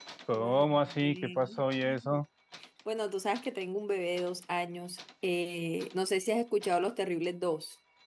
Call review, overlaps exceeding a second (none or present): present